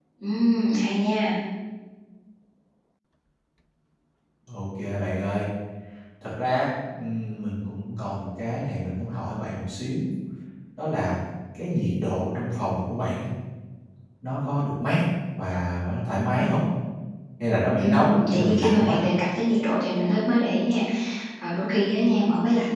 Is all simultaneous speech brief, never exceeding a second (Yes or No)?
No